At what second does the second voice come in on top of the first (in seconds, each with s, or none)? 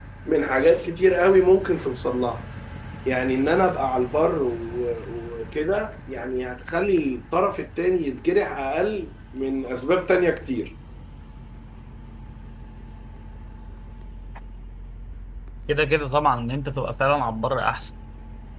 none